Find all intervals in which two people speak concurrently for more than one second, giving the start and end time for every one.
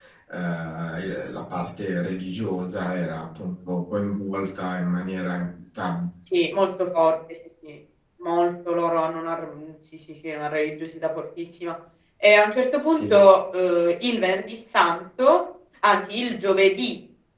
none

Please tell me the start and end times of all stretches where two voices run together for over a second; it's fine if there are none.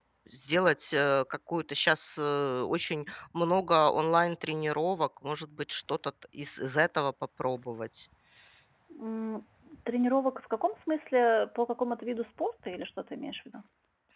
none

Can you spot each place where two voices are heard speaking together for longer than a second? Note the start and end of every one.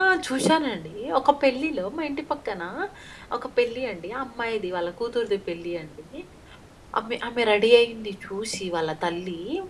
none

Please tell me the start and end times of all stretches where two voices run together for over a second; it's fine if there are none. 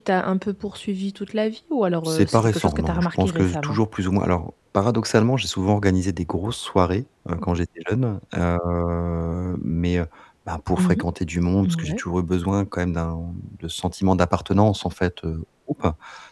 2.0-3.8

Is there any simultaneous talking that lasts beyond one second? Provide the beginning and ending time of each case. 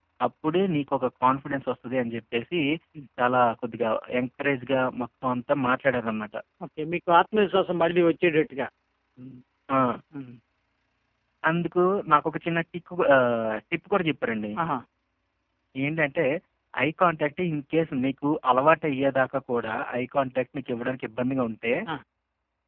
none

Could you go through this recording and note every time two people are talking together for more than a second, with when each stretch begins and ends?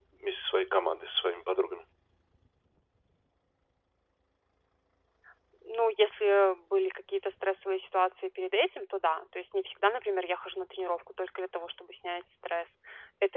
none

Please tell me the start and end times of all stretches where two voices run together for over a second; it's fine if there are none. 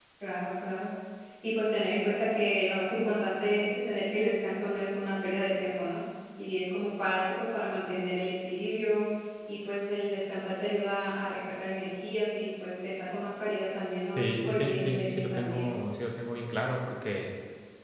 14.2-15.7

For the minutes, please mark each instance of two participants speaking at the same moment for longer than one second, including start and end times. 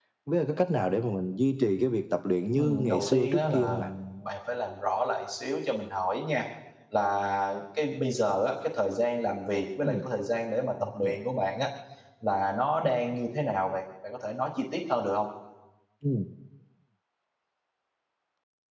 2.5-3.9

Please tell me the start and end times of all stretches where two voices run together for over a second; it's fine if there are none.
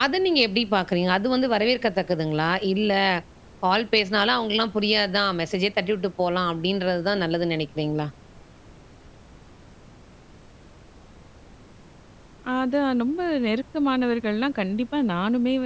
none

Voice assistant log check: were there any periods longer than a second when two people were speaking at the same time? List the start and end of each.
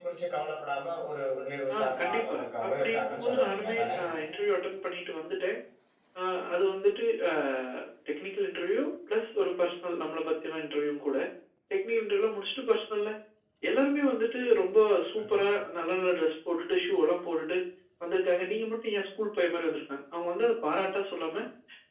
1.7-4.0

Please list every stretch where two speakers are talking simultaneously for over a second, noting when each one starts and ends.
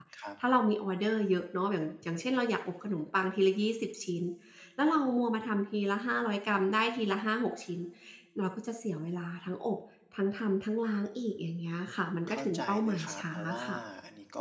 12.3-13.6

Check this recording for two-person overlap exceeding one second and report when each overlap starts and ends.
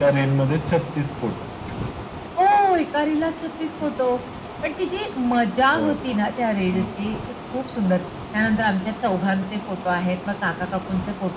none

